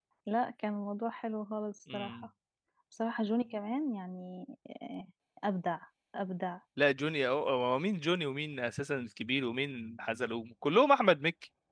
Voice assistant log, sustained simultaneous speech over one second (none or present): none